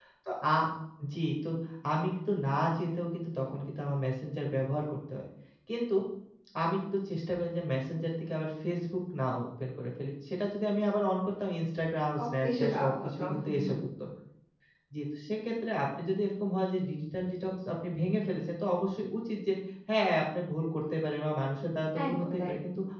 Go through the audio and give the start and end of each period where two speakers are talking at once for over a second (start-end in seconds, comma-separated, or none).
12.2-13.8